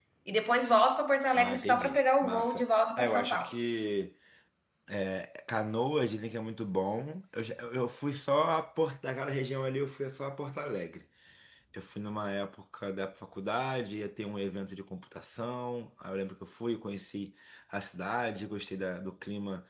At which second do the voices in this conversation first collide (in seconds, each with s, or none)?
1.3 s